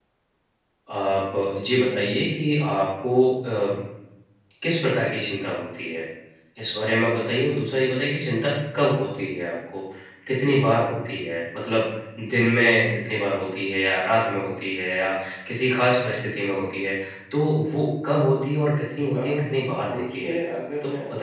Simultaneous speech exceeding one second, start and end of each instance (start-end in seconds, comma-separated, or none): 19.1-20.3